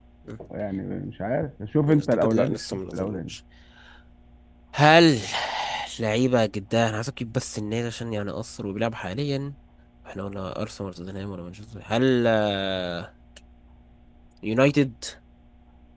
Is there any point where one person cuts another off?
Yes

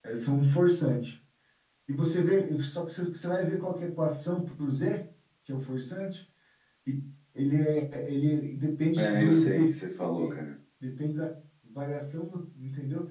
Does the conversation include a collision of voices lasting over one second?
Yes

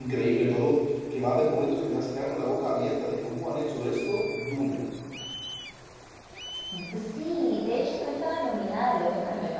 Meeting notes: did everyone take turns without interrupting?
Yes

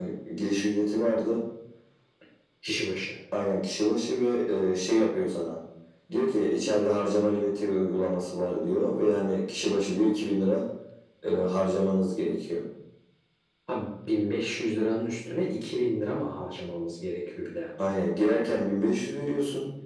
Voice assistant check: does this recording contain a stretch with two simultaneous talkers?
No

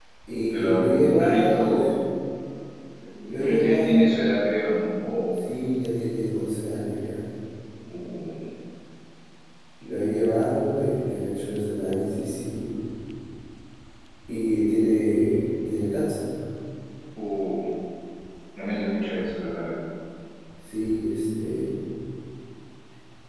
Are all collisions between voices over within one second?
No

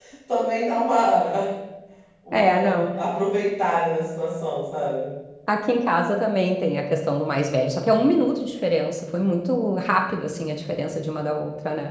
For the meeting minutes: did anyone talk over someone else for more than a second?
No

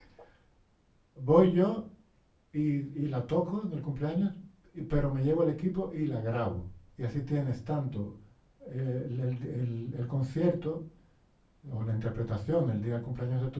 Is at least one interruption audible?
No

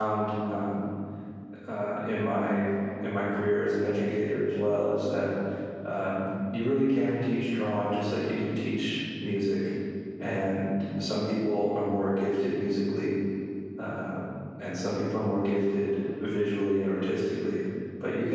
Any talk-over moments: No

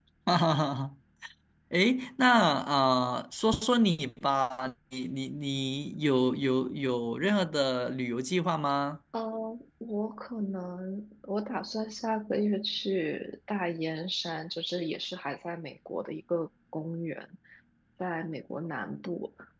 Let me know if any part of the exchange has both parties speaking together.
No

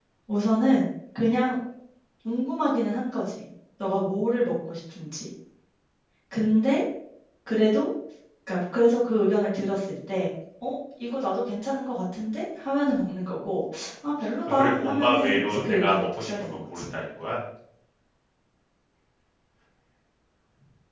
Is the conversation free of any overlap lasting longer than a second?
No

